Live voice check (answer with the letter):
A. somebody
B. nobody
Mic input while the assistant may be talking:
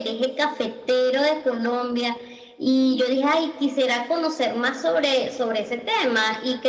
B